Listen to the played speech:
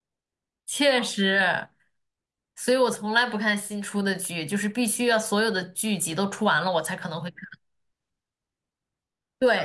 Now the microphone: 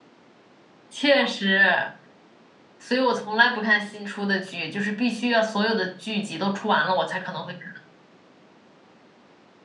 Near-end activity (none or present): none